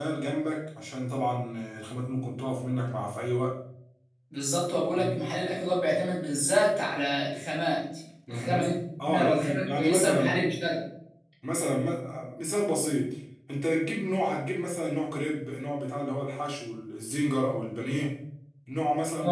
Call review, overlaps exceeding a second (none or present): present